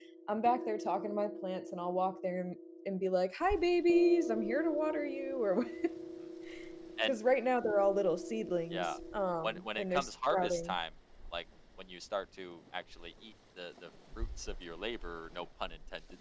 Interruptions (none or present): present